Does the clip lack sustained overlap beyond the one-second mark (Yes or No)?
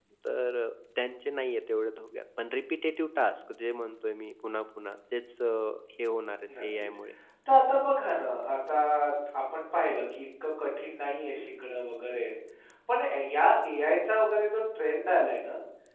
Yes